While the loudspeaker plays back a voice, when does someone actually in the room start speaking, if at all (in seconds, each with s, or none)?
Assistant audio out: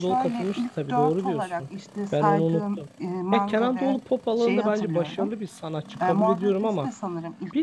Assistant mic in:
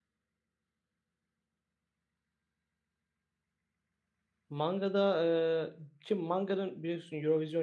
4.5 s